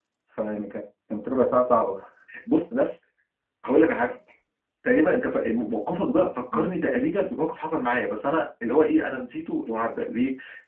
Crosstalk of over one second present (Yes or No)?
No